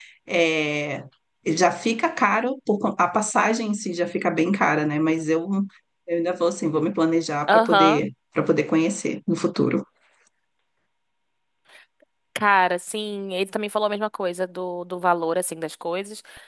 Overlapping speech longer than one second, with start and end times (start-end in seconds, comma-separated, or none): none